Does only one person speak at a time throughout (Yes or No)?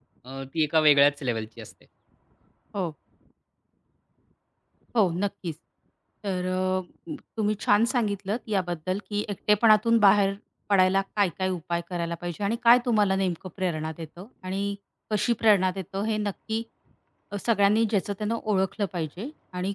Yes